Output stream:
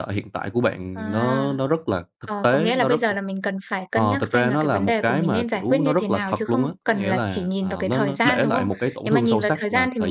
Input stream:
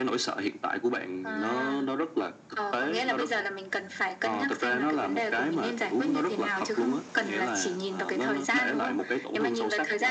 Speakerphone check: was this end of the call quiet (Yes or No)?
Yes